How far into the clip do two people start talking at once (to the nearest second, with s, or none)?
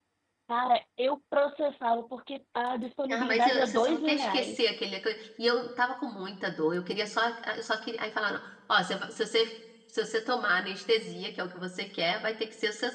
3 s